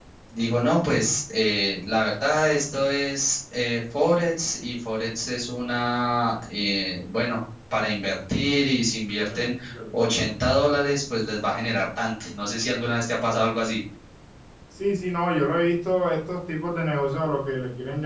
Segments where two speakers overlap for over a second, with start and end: none

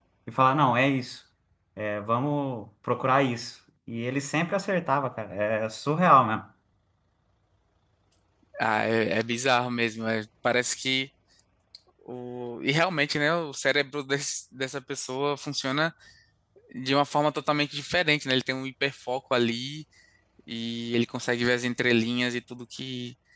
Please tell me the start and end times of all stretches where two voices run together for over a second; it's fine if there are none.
none

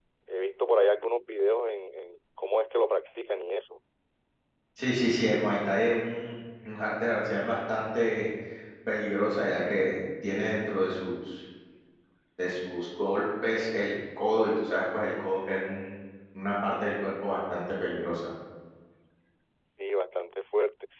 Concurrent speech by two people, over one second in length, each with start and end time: none

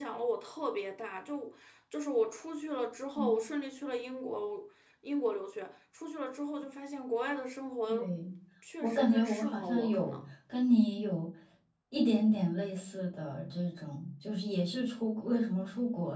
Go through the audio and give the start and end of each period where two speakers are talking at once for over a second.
8.8-10.2

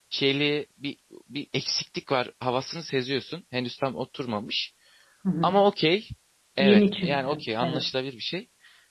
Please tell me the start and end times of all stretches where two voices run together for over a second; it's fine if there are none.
6.6-7.8

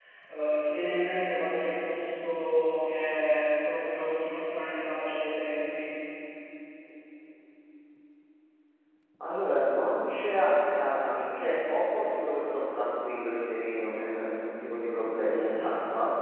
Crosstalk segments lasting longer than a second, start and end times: none

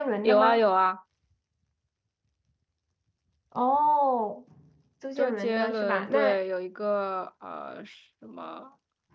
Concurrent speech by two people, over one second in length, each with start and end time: 5.2-6.4

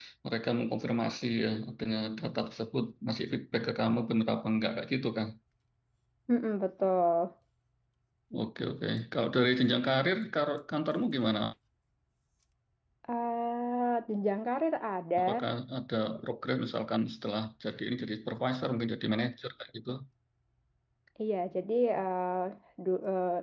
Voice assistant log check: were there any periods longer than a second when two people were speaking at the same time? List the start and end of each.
none

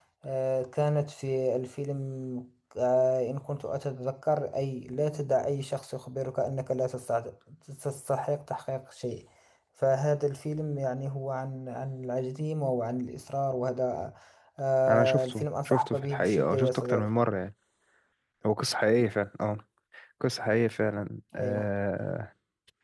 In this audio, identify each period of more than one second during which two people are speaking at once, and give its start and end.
14.9-17.1

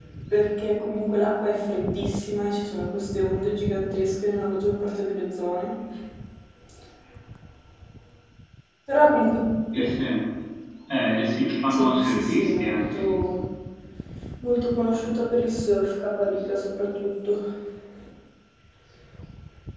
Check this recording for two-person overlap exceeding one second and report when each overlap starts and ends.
11.7-13.2

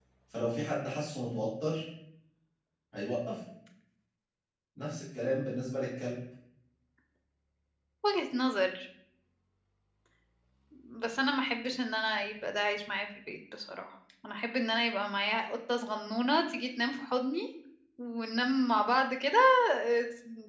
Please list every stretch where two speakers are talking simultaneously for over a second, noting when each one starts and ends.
none

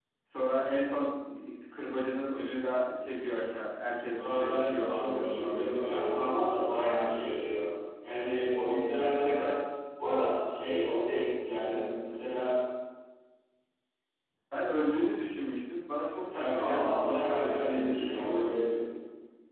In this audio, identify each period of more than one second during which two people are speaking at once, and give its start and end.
4.1-6.0, 16.3-18.4

